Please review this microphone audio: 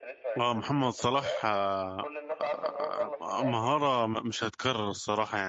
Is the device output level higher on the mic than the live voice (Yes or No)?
No